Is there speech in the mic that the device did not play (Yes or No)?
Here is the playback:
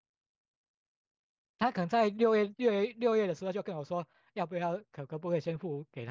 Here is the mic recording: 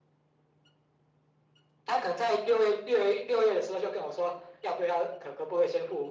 No